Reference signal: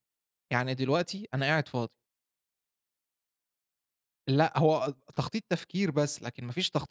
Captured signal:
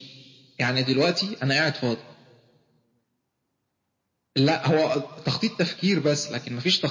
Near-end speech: none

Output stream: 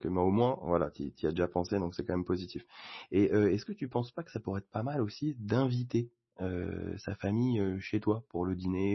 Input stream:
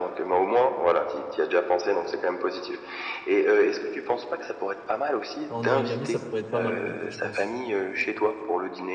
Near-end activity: present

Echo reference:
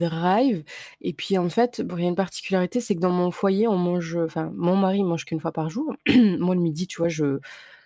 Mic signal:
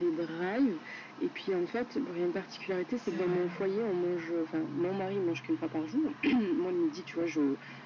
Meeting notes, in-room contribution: present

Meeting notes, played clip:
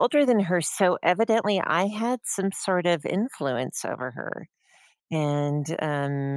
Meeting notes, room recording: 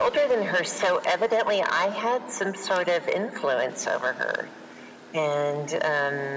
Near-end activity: none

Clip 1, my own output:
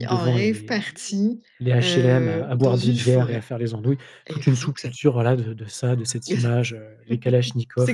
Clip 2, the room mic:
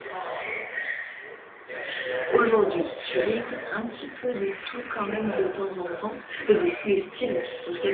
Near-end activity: present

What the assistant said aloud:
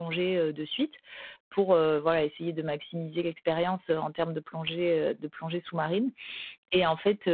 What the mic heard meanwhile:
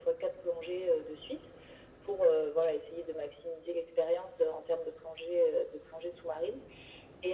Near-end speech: none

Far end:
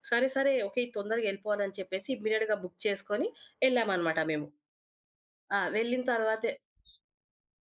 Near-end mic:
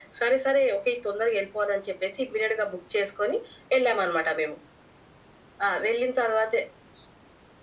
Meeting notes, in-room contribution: none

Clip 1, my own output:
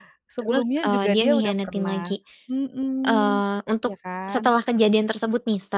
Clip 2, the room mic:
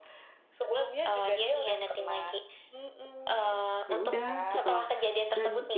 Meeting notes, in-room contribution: present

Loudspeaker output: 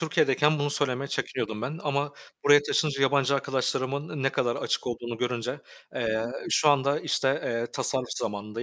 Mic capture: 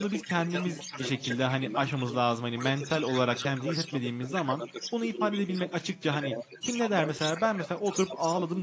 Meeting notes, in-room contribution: present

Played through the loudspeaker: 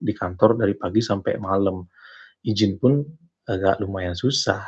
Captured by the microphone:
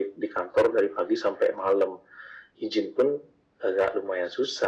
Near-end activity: none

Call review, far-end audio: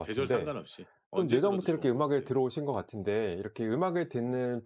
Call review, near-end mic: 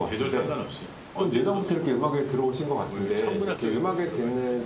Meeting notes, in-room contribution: present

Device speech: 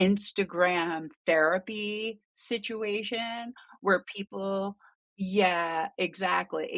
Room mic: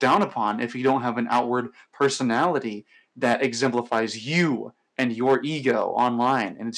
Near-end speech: present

